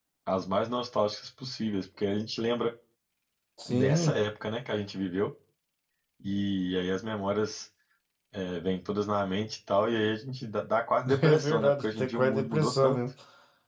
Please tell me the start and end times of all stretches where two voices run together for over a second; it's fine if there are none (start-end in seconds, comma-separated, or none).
11.2-13.0